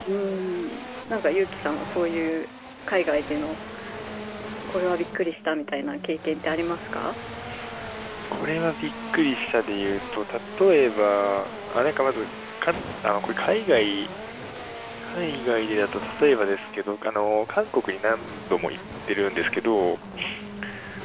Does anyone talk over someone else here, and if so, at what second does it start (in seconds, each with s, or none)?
none